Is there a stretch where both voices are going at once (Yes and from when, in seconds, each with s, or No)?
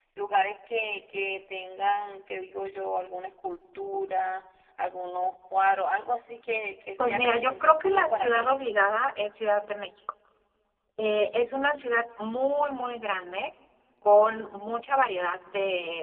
Yes, from 7.0 s